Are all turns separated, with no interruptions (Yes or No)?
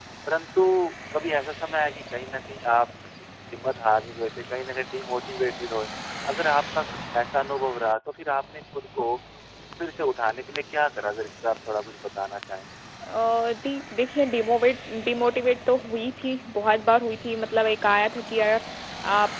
Yes